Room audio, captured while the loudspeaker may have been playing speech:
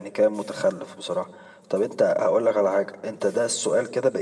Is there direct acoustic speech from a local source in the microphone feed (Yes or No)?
No